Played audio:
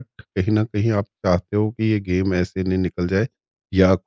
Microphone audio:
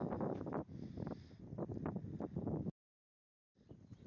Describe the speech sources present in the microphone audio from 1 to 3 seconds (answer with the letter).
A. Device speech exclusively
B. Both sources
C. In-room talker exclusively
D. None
D